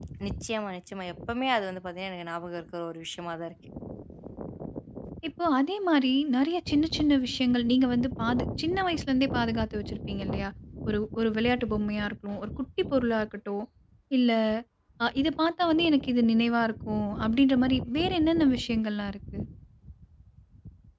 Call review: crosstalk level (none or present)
none